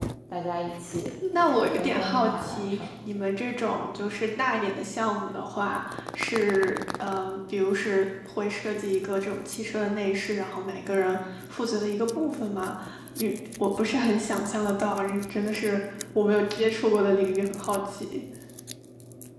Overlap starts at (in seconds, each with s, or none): 1.2 s